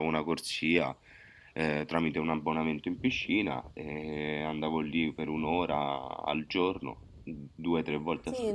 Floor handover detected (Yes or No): Yes